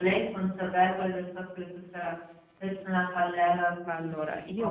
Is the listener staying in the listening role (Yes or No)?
No